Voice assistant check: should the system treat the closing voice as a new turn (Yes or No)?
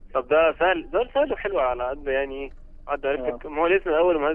No